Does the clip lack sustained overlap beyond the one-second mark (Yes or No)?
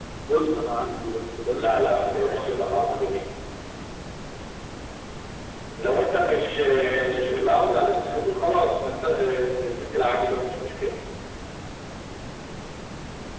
No